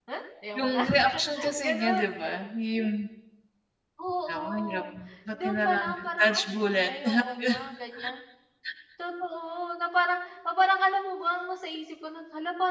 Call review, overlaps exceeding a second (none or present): present